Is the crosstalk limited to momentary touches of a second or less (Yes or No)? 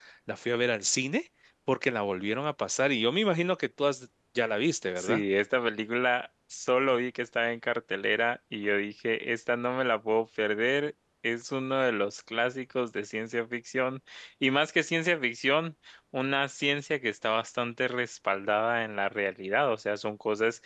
Yes